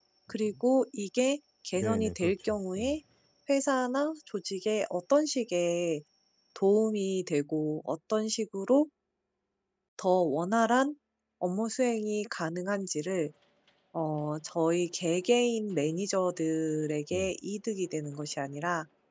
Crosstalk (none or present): present